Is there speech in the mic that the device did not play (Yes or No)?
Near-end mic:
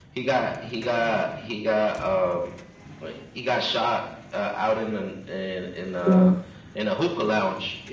Yes